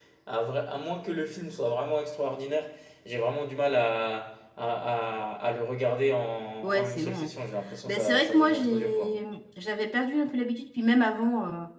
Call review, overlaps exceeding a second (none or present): present